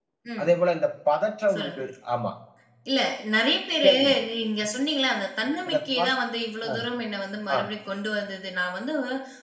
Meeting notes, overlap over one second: none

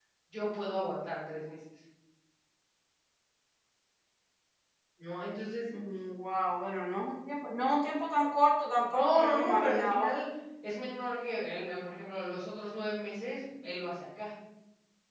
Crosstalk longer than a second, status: present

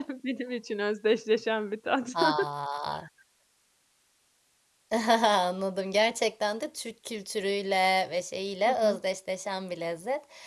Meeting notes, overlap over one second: none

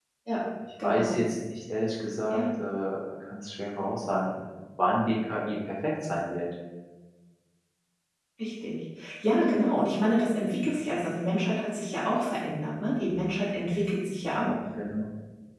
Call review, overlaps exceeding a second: none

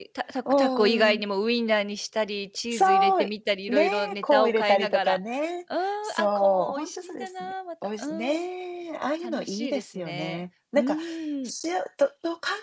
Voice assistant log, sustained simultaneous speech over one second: present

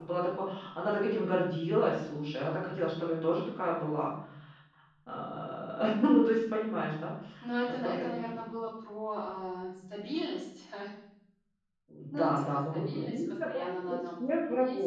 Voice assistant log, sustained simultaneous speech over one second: present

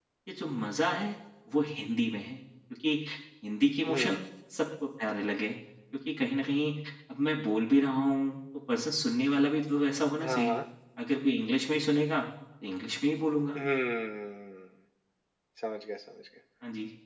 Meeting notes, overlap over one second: none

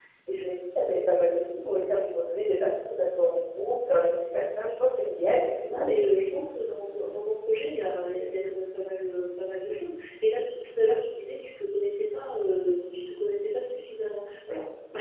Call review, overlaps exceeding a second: none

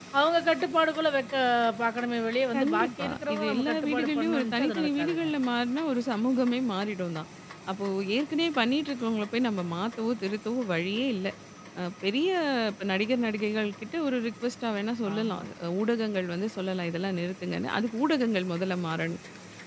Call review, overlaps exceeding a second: present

